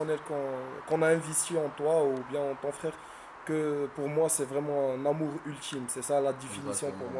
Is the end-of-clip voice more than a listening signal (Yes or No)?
Yes